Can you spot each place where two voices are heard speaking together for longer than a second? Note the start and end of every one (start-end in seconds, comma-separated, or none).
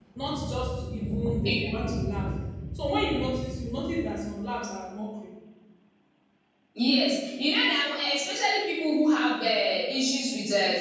none